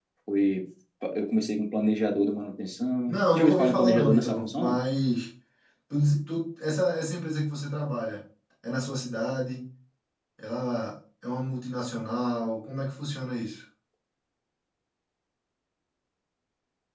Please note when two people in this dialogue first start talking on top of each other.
3 s

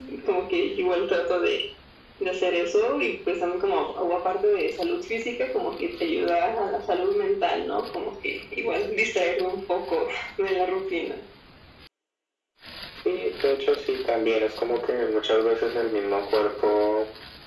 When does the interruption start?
none

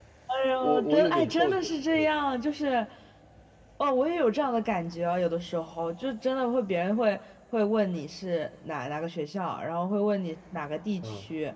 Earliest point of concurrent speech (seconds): 1 s

